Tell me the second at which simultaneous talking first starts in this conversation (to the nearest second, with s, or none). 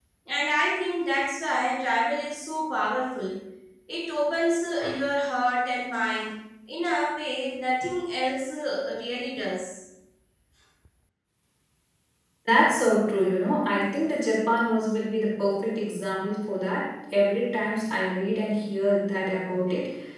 none